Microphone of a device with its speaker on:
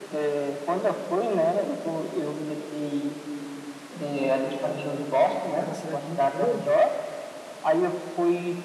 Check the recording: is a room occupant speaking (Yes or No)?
Yes